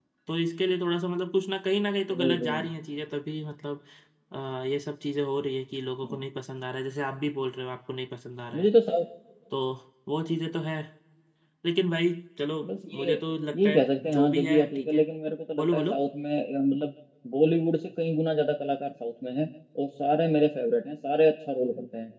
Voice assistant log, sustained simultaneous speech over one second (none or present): present